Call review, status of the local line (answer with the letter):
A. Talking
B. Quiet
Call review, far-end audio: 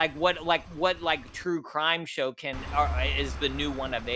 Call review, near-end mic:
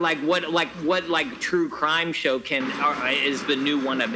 B